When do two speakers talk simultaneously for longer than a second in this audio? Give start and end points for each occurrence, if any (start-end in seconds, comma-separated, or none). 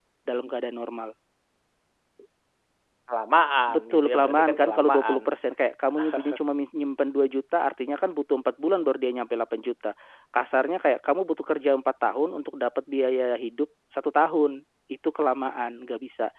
3.7-5.2